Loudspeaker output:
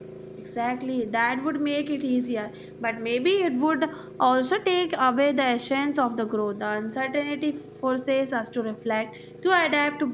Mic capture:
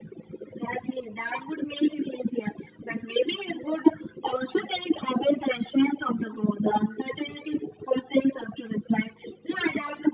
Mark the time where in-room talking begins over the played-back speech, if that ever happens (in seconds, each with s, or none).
none